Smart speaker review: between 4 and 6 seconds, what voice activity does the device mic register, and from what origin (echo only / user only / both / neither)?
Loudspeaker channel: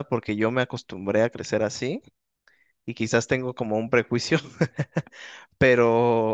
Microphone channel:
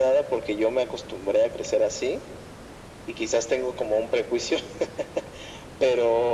echo only